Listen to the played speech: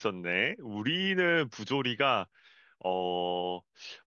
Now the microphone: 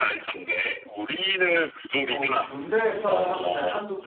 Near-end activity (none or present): present